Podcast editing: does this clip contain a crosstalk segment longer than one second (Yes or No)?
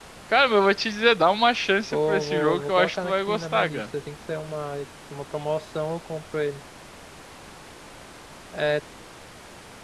Yes